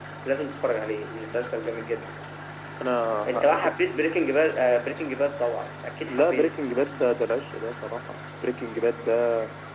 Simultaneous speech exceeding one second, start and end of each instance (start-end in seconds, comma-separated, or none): none